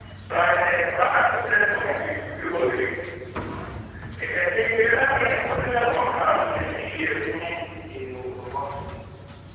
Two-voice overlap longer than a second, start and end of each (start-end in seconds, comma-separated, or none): 5.1-7.3